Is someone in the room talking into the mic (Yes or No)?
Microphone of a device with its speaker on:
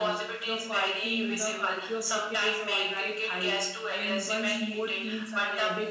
Yes